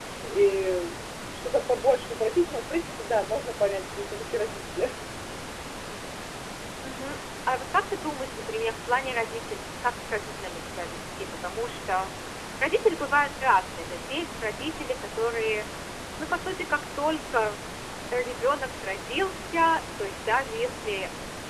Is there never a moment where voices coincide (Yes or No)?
Yes